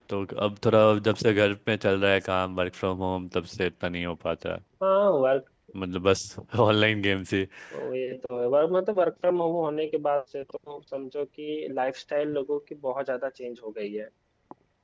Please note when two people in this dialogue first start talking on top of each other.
none

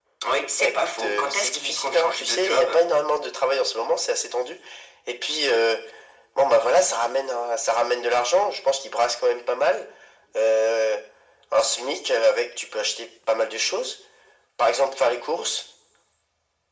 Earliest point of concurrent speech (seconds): 1 s

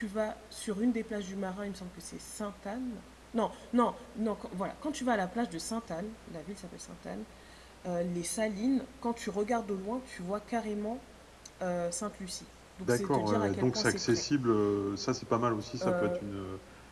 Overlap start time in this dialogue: 13 s

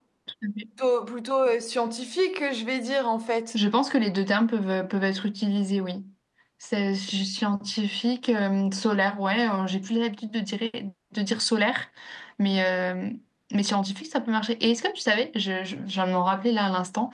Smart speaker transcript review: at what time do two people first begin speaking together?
none

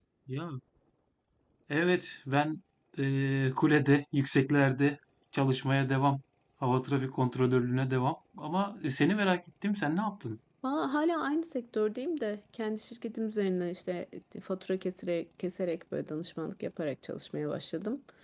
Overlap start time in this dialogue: none

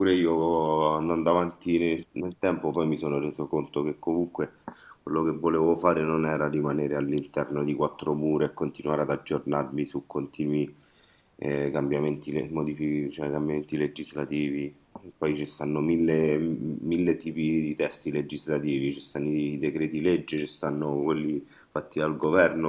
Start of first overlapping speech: none

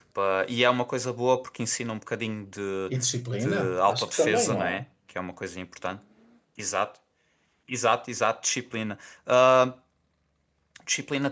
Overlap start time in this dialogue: 3 s

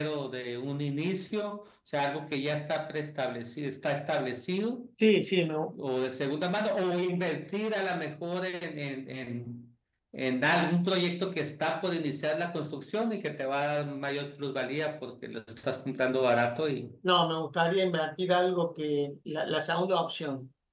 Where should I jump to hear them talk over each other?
none

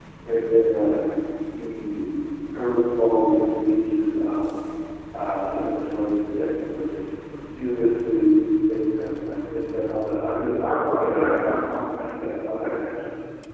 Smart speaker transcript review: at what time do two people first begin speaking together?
none

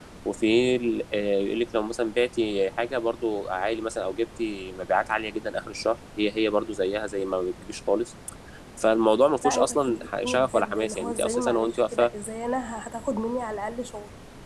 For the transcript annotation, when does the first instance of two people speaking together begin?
9 s

